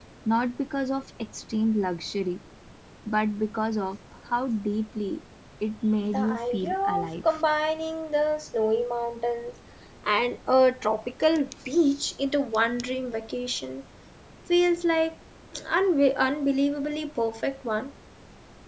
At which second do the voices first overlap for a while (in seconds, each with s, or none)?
6.1 s